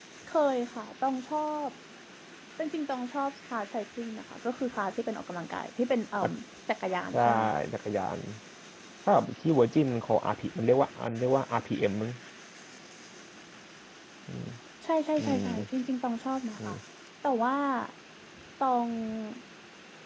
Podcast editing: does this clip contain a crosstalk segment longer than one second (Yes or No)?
No